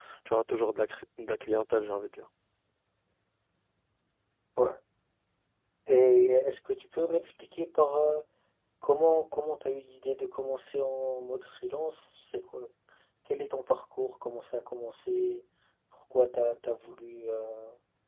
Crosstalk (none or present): none